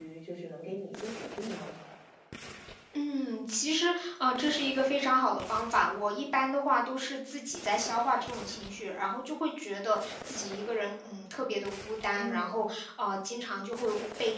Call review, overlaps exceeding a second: none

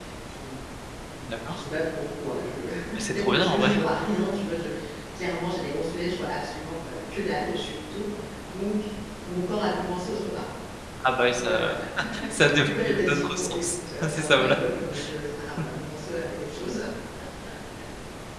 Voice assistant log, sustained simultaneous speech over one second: present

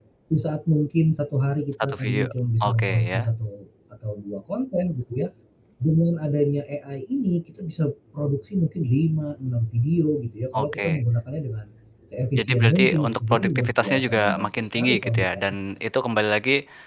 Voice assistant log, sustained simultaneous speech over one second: present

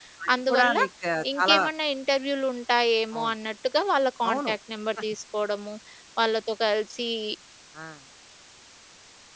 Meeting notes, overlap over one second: none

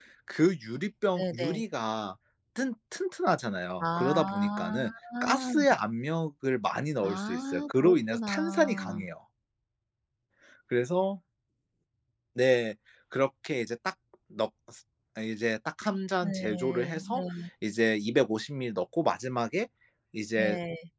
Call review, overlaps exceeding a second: present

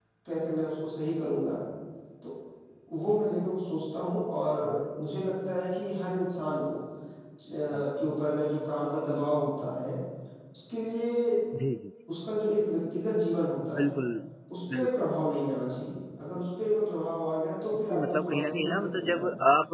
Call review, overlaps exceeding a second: present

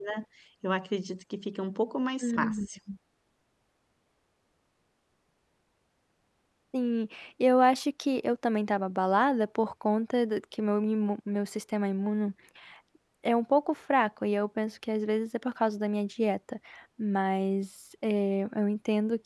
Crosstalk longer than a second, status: none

